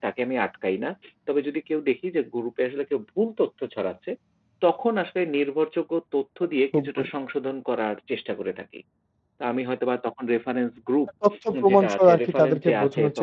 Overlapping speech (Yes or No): Yes